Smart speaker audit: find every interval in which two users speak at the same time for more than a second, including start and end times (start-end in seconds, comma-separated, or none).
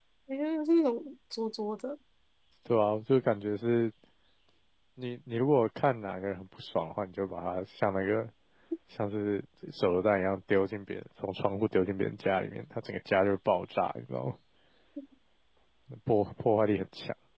none